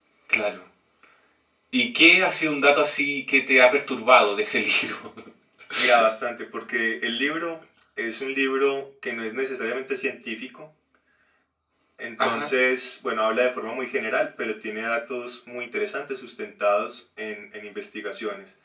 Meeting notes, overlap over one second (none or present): none